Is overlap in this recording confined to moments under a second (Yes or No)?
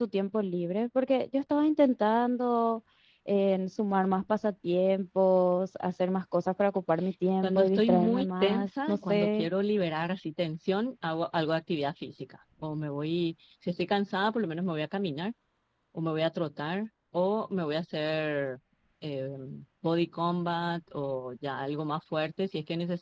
No